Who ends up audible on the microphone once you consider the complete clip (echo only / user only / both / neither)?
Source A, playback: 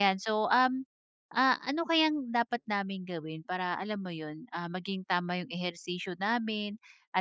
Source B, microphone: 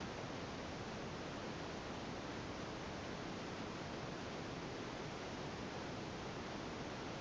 neither